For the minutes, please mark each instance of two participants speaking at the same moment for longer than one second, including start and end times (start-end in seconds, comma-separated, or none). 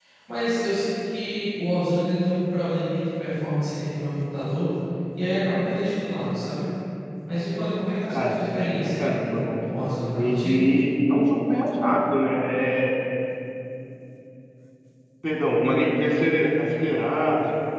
8.1-9.6